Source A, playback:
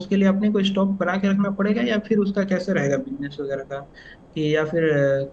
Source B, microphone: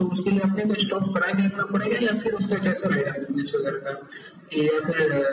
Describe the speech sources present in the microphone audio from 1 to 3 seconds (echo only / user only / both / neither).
echo only